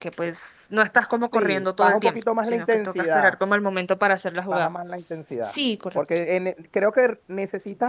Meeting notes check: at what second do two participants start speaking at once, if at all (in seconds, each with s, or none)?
1.3 s